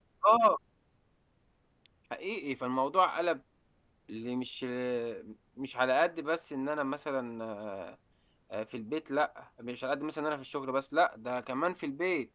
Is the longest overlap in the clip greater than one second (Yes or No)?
No